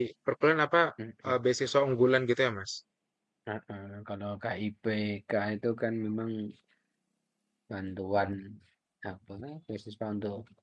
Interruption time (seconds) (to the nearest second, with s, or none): none